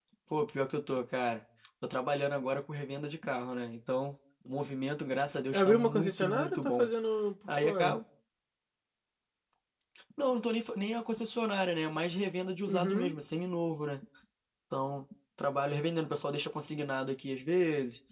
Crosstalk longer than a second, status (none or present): present